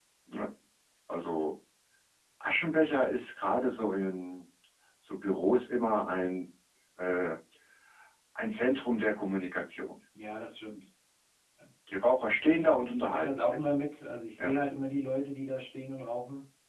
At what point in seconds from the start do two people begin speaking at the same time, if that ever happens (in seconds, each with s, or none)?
12.4 s